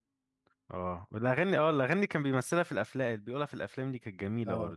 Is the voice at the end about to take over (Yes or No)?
Yes